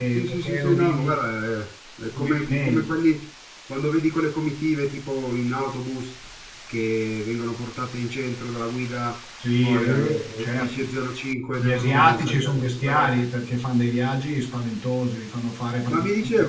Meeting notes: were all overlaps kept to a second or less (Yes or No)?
No